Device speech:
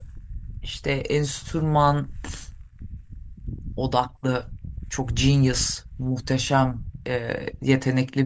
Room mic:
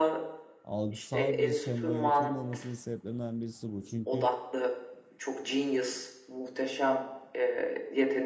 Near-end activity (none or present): present